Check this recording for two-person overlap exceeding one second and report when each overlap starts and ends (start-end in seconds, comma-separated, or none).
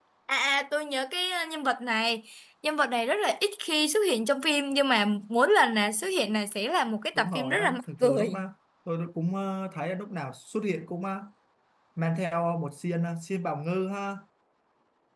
7.2-8.4